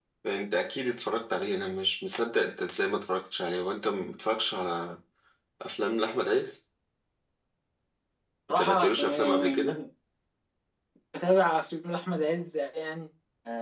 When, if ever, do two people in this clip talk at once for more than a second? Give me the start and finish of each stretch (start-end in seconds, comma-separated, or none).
8.5-9.8